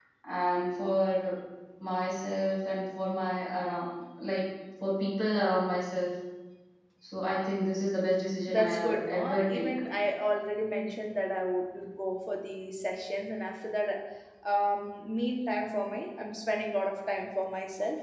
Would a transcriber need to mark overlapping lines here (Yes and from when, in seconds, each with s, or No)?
Yes, from 8.5 s